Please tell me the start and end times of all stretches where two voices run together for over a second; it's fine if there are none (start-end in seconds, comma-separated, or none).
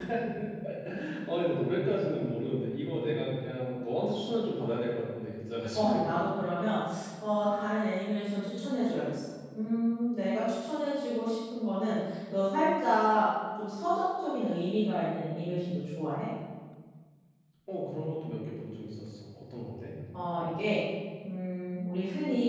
none